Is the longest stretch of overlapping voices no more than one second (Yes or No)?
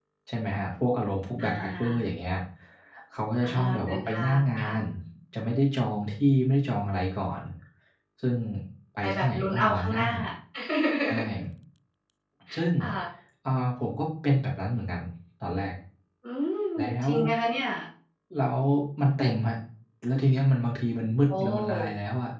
No